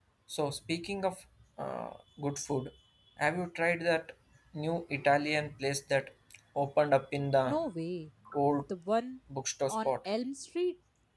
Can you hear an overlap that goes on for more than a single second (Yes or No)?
No